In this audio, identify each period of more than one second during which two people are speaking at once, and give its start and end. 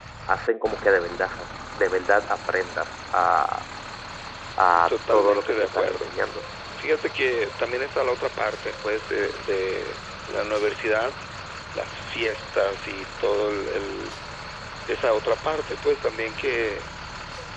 4.9-6.1

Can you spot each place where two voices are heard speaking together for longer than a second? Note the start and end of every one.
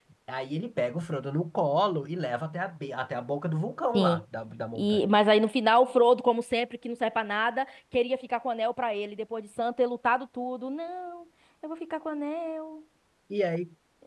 none

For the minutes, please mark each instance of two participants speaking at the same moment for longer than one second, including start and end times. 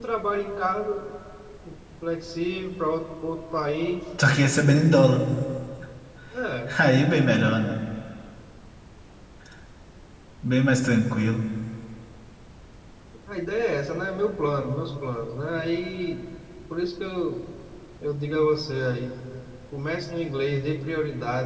none

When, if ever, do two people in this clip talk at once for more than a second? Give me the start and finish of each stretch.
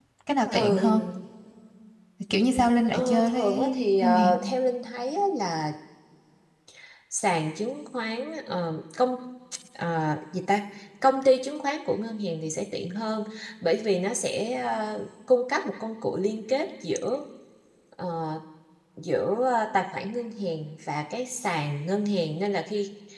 2.9-4.3

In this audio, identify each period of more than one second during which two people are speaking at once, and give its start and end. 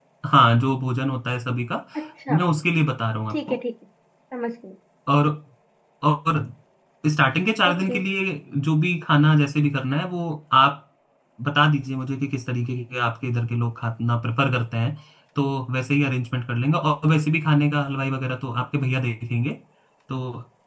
none

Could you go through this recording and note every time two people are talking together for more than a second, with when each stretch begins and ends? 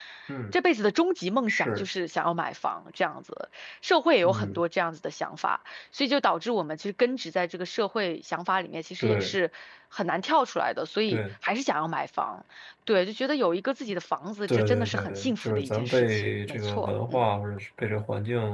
14.5-17.3

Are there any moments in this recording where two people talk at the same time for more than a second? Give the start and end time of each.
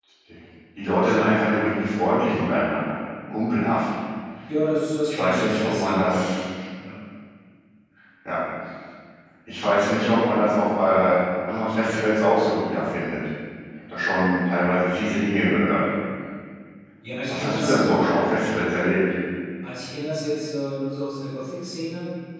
5.0-6.3

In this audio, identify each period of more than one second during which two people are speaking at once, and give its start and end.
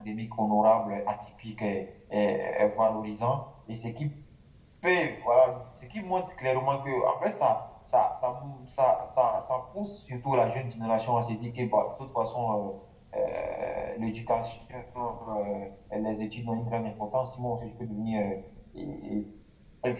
none

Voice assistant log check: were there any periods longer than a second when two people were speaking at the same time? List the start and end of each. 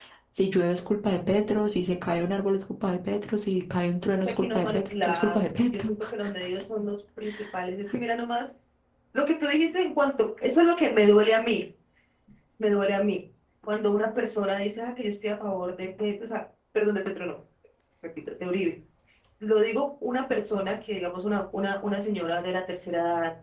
4.2-5.9

